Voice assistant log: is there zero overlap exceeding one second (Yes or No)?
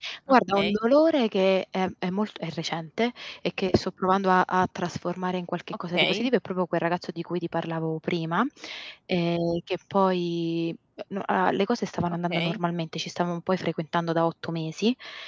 Yes